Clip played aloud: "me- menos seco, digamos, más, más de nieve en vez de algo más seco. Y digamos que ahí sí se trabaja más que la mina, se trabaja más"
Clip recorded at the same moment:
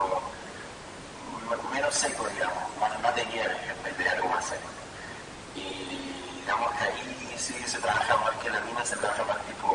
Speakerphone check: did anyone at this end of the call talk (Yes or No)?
No